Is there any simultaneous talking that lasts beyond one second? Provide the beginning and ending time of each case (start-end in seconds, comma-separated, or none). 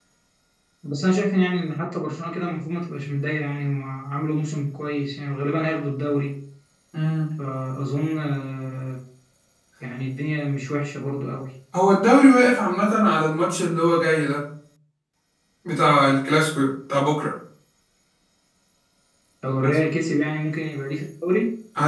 none